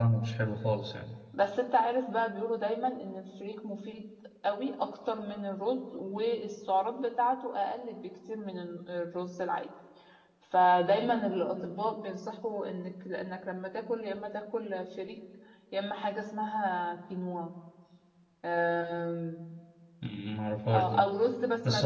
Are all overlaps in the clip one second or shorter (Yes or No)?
Yes